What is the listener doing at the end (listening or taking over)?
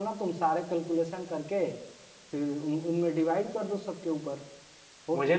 taking over